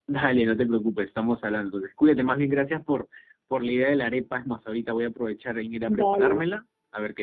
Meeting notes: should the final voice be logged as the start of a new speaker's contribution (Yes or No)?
No